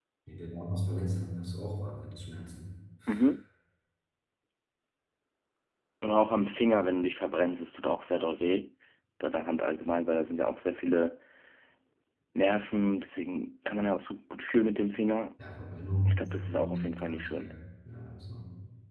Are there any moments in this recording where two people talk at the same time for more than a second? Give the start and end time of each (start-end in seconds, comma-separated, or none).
16.1-17.5